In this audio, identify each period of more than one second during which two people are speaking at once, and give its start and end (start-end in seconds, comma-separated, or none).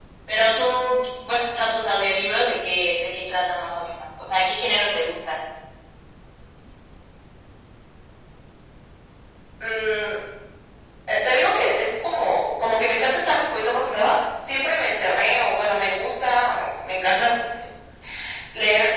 none